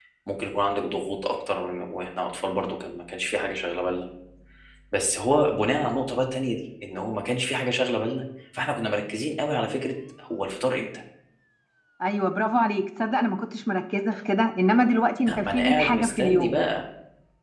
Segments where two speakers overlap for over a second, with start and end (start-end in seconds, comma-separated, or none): 15.3-16.6